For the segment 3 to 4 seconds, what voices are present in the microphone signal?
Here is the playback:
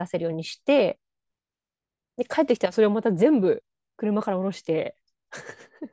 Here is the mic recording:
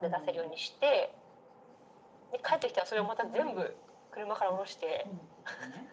both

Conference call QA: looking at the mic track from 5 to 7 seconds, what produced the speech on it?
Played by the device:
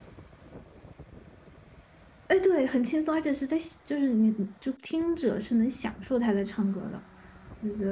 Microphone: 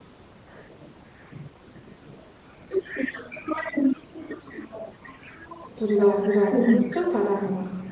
both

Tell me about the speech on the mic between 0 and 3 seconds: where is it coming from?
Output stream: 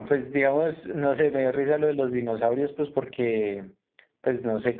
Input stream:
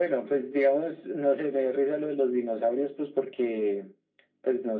echo only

